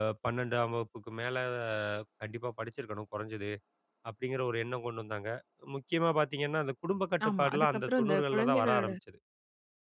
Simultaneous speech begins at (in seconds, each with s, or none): 7.2 s